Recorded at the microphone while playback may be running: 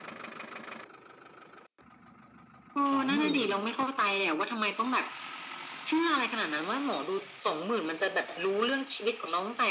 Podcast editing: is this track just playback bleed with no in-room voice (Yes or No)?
No